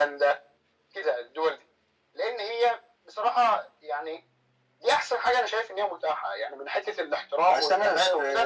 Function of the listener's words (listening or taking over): taking over